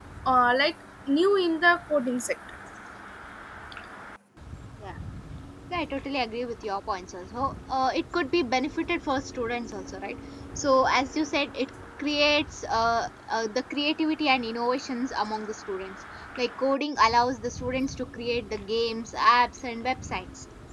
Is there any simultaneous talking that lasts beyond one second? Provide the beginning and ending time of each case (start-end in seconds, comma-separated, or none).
none